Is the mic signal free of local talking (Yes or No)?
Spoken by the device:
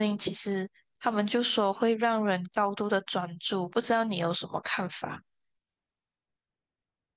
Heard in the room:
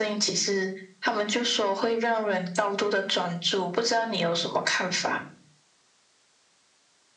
Yes